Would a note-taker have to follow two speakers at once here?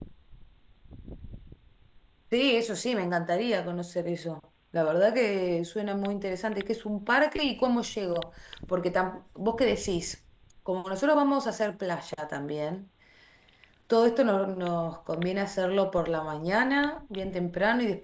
No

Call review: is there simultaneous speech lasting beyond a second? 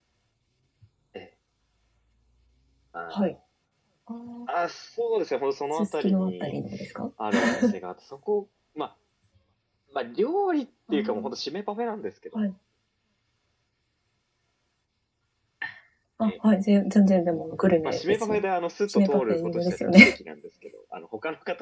Yes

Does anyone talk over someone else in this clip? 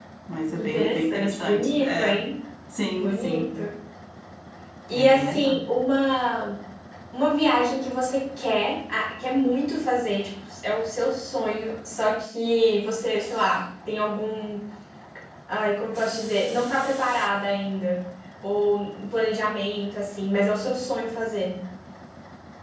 Yes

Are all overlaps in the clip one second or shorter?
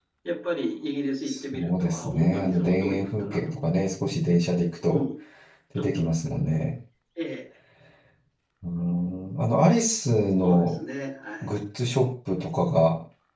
No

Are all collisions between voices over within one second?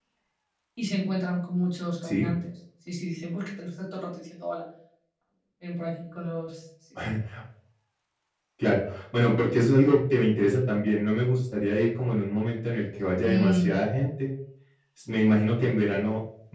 Yes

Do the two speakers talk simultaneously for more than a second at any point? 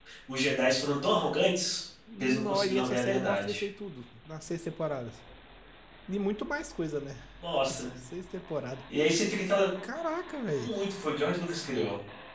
Yes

